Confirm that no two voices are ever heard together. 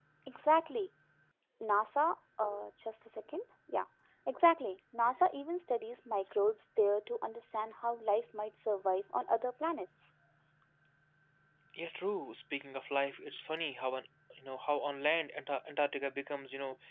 Yes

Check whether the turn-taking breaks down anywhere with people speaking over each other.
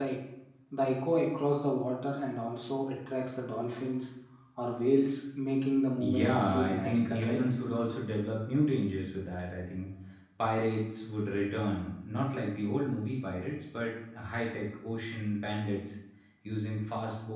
Yes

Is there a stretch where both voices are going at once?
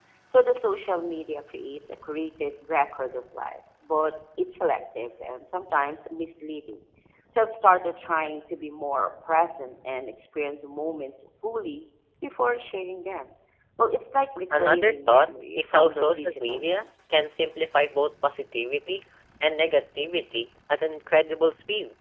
Yes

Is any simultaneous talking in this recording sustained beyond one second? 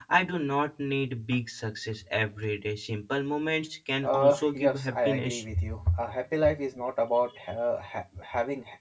Yes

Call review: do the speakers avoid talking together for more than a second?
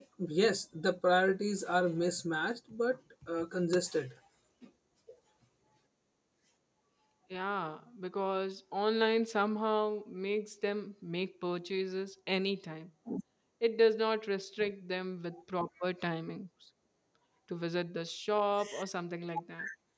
Yes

